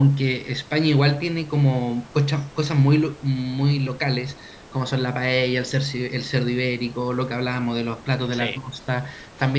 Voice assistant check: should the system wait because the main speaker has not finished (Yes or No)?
Yes